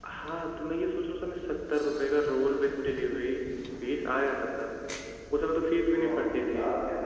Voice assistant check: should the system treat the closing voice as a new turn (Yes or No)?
Yes